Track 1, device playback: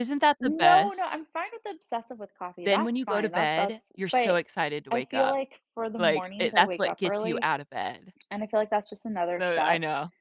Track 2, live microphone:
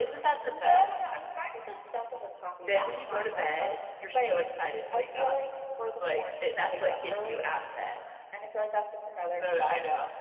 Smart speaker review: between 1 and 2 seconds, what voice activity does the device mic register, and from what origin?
echo only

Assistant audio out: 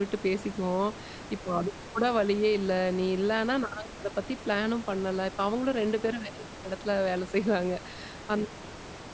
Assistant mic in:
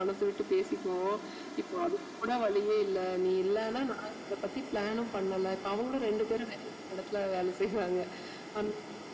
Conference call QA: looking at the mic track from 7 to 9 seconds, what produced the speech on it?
echo only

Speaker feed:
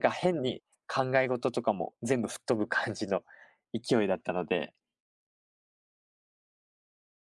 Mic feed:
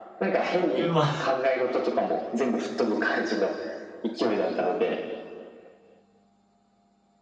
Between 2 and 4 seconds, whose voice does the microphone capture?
echo only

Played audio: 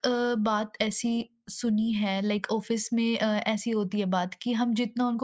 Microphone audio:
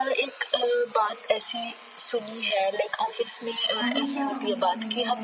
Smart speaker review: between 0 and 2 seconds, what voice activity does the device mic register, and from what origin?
echo only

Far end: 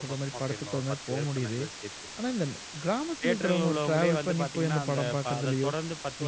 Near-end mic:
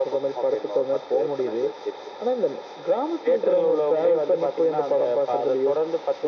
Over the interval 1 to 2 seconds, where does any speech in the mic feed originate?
echo only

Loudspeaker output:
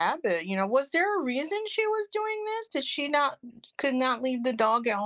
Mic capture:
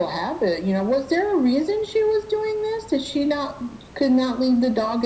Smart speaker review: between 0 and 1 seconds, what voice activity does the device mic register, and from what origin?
echo only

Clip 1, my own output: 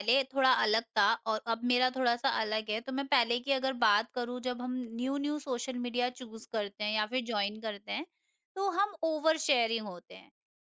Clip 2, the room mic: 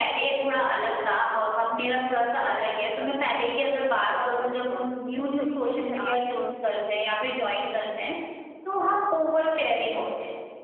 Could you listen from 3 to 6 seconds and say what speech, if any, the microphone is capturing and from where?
both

